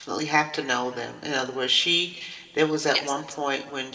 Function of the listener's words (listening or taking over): listening